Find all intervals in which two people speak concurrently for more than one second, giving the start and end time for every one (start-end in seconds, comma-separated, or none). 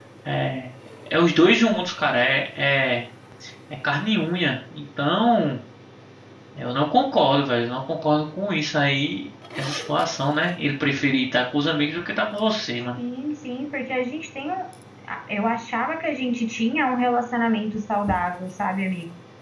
none